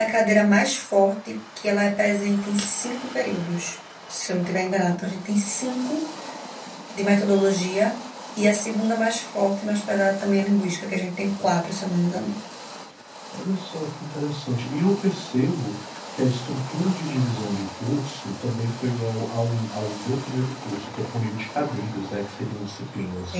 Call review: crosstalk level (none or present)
none